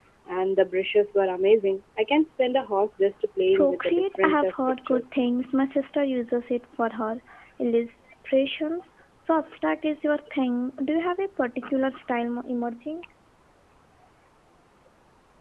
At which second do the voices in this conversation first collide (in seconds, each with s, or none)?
3.5 s